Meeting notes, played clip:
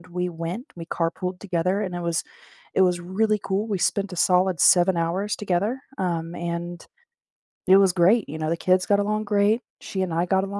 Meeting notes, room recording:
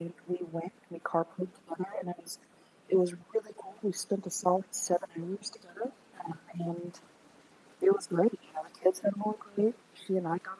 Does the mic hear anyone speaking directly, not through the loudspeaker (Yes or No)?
No